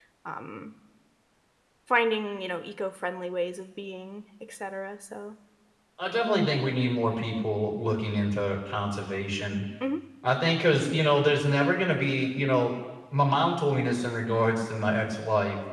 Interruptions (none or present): none